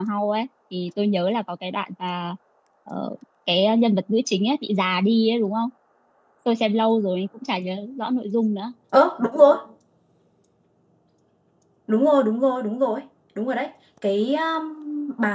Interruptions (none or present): none